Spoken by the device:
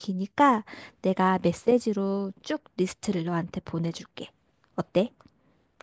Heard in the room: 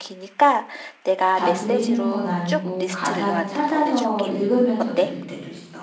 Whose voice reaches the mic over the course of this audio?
both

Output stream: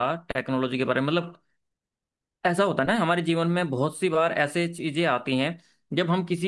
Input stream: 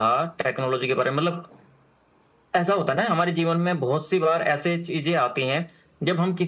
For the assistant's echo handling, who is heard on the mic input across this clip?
echo only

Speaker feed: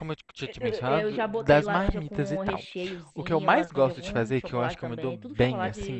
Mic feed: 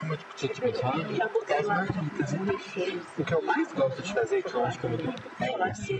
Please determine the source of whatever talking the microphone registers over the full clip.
echo only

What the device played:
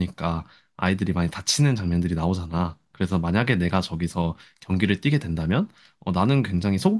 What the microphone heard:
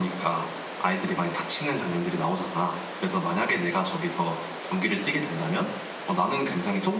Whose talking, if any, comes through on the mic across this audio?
echo only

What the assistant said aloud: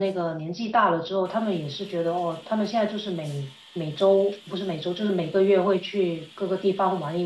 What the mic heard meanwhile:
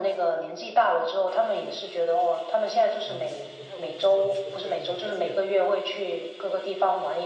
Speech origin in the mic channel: both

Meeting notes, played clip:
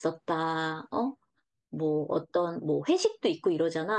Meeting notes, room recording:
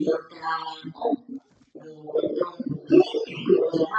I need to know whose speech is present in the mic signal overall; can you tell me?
echo only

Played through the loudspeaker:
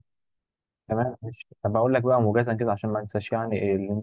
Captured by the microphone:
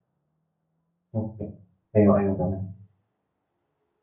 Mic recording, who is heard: user only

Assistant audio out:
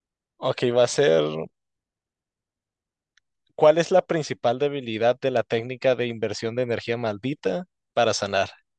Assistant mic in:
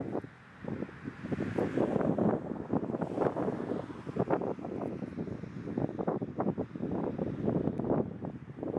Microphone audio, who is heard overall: neither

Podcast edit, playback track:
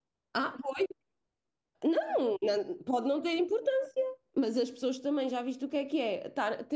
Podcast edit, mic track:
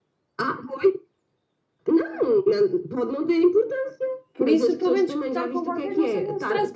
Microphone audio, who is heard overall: both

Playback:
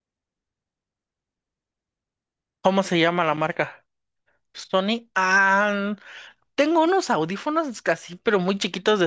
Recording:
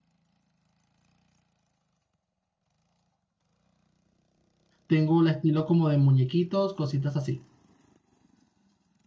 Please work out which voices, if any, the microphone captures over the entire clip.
user only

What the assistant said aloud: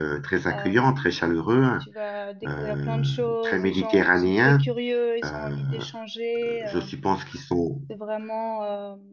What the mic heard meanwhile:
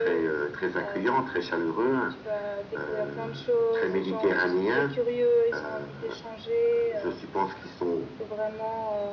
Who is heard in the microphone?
echo only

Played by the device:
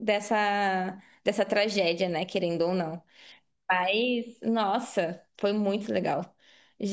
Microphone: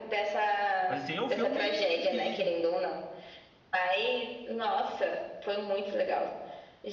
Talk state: both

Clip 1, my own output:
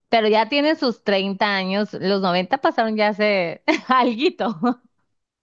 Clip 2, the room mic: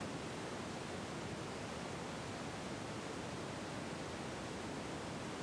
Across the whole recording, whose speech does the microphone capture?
neither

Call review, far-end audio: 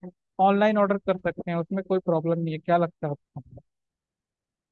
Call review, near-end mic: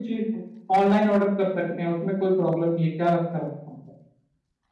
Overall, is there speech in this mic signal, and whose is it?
echo only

